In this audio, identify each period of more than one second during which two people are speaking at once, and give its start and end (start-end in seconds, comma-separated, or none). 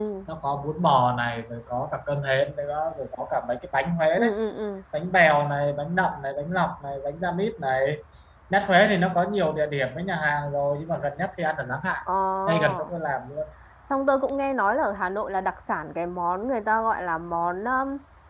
none